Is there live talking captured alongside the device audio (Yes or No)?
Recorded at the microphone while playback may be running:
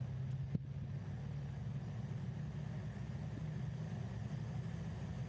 No